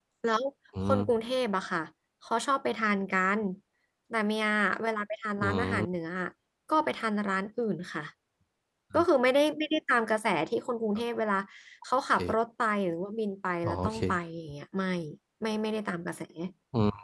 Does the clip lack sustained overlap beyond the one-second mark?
Yes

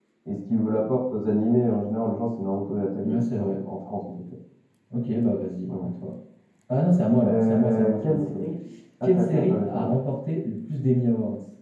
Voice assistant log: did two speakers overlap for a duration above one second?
Yes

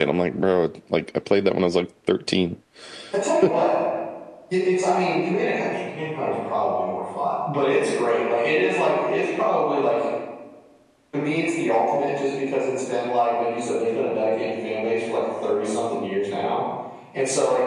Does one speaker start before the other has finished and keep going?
No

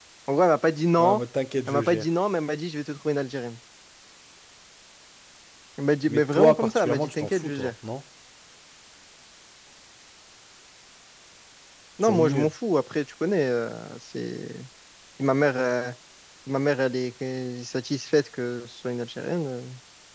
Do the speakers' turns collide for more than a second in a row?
Yes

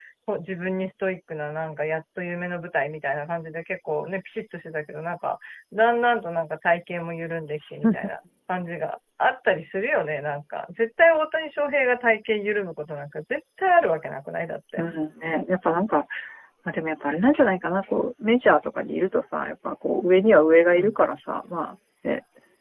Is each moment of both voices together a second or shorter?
Yes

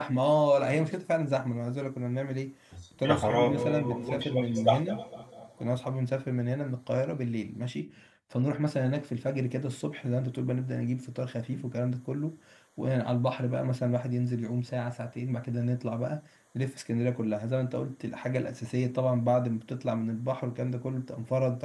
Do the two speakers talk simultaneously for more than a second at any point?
Yes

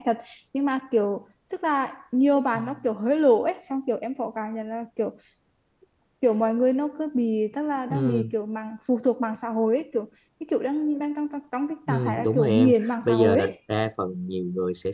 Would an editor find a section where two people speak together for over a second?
Yes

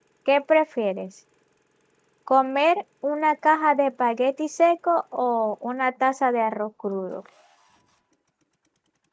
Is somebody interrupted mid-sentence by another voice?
No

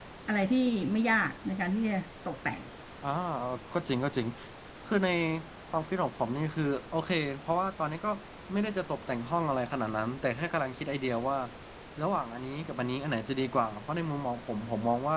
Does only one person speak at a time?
Yes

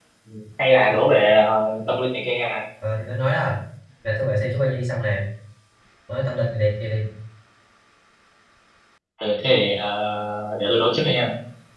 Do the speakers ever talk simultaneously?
No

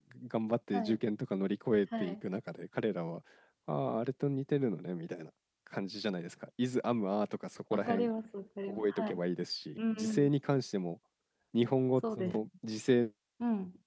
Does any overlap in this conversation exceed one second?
No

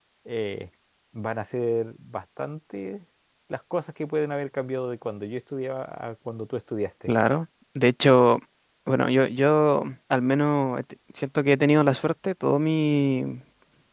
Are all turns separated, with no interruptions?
Yes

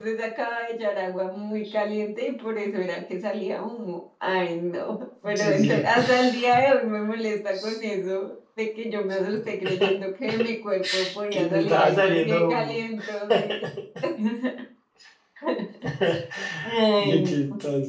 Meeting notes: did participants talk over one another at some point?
Yes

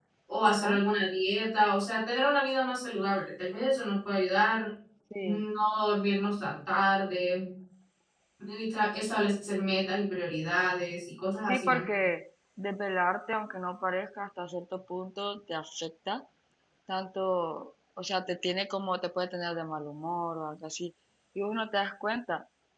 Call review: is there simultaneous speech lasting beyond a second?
No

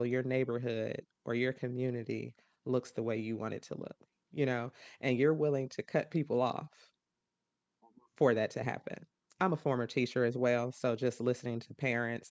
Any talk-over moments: No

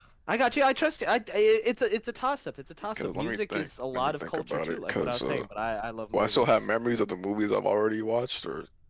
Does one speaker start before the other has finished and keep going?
Yes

